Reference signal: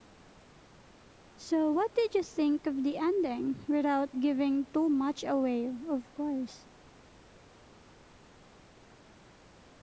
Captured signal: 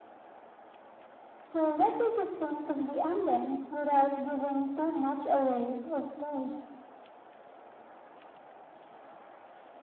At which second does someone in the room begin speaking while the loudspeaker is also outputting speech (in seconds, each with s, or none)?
none